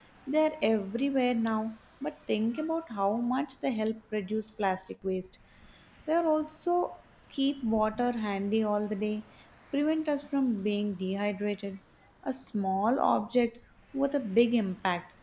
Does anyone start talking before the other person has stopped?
No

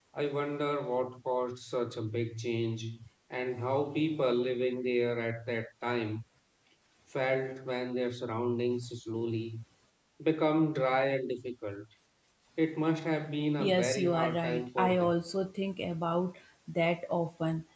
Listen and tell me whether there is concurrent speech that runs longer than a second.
Yes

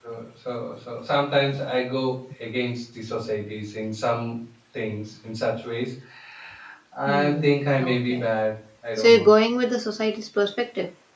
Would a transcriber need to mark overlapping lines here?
Yes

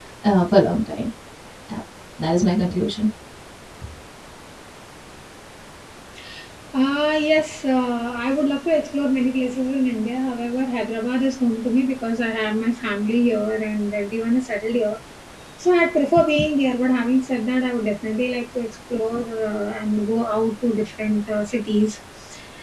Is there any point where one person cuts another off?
No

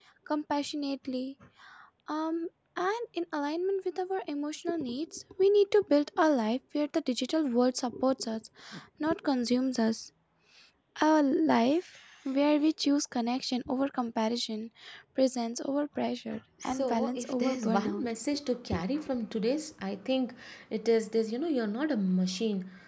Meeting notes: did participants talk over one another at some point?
Yes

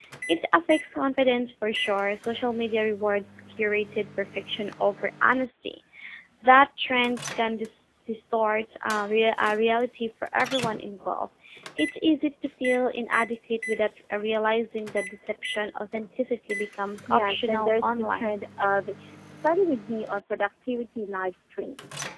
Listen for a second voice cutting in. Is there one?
Yes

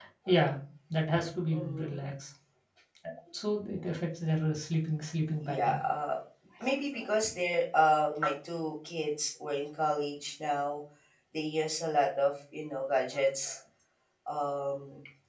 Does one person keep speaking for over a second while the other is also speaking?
No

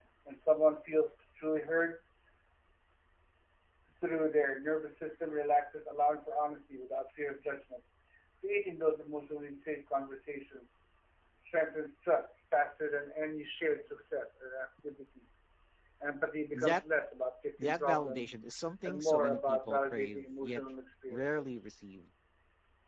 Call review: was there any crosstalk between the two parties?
Yes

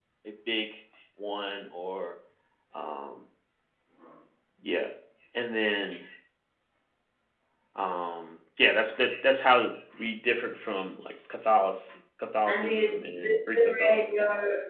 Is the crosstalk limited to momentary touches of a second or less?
No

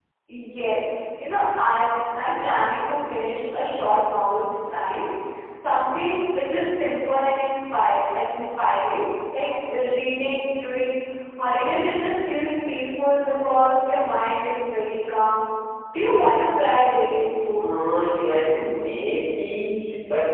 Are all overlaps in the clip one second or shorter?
Yes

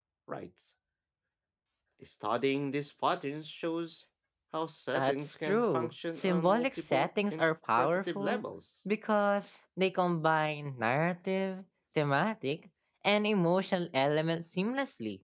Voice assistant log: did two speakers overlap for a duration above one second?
Yes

